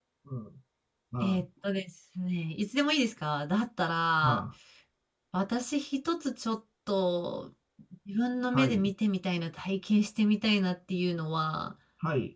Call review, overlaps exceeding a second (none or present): none